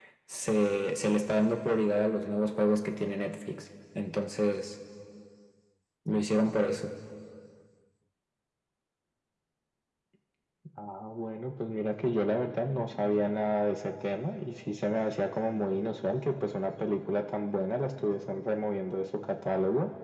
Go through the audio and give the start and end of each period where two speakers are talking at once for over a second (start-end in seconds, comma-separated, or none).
none